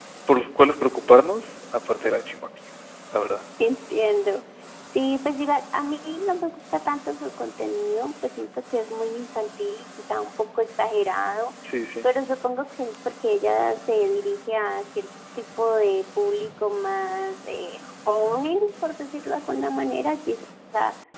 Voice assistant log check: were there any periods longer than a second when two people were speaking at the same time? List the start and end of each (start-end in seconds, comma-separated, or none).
none